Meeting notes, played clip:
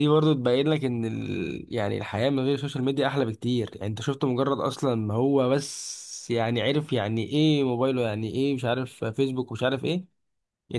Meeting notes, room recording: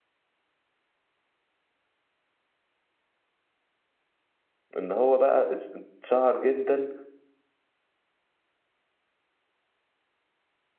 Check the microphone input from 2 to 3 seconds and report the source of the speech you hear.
neither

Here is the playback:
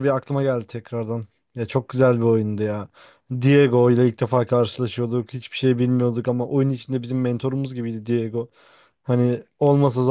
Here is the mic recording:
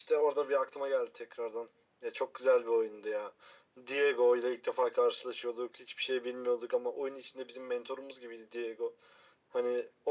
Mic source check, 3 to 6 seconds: echo only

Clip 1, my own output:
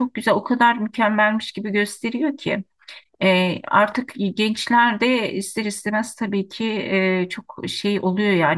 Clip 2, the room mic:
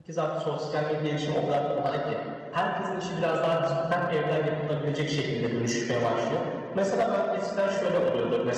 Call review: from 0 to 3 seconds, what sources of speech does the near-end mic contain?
user only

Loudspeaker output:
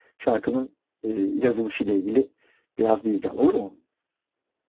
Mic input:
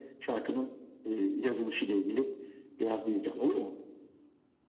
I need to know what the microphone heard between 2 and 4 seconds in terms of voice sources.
echo only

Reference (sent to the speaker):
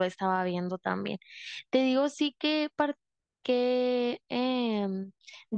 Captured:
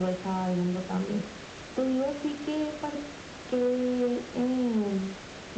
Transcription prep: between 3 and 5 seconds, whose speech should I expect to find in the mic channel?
echo only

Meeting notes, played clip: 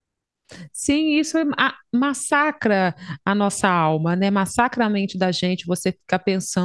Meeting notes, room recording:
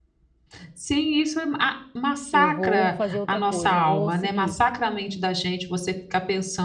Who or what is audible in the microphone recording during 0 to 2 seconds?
echo only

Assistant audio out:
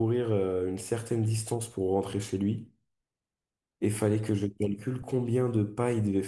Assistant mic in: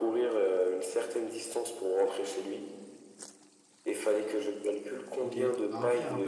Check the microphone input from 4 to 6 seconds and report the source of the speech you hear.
both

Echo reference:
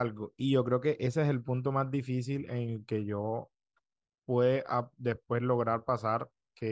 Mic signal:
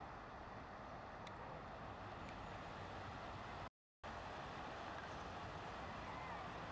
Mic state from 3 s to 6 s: neither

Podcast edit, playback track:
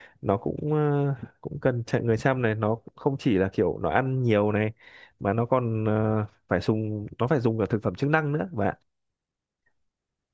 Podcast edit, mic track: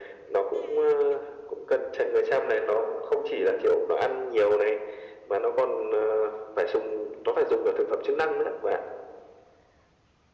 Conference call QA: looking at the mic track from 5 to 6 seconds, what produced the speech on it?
echo only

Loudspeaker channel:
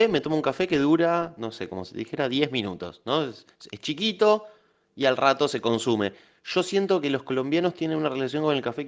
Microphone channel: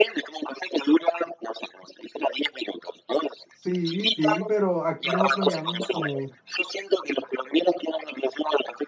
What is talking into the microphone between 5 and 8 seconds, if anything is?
both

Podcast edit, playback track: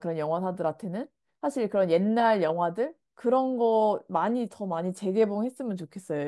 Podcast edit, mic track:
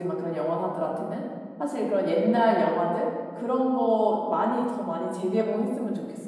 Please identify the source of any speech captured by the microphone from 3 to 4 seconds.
echo only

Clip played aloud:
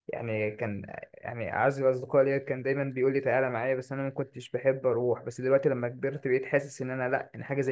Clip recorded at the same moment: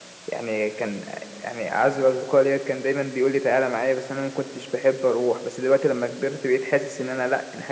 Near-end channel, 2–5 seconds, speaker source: echo only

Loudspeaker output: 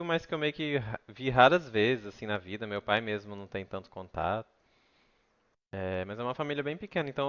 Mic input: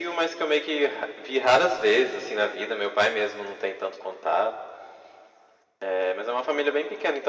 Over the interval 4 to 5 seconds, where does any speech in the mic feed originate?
echo only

